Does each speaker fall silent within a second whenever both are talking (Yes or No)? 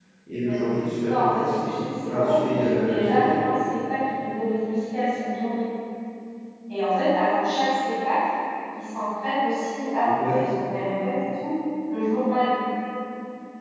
No